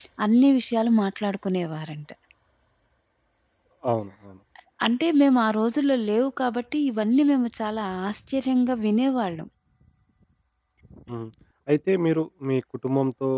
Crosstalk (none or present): none